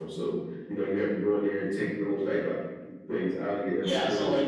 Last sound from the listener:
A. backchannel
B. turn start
B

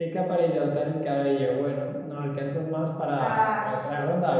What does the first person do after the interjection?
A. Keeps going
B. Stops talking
A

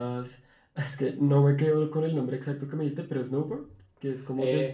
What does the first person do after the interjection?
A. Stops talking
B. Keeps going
A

